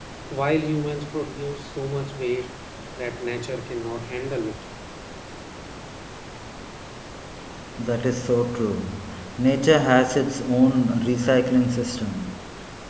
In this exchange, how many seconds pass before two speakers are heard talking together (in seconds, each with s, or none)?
none